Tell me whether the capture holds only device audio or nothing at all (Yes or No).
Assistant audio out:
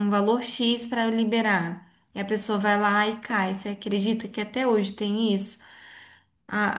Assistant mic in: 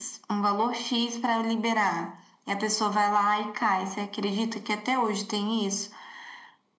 Yes